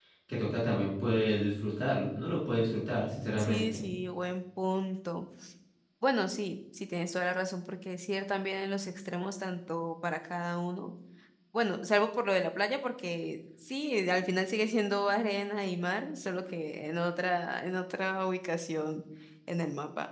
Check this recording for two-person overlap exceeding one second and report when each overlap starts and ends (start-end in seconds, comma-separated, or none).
none